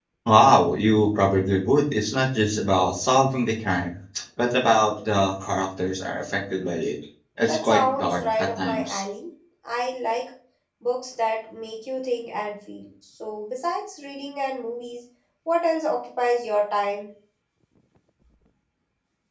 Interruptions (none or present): present